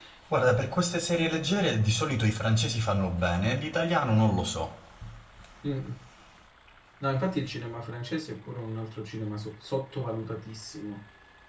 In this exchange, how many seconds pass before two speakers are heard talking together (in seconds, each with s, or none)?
none